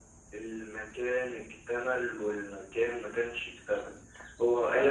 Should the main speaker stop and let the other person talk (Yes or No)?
No